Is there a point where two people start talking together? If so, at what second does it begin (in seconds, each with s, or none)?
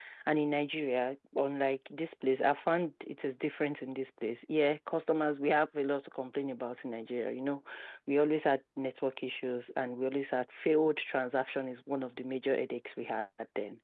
none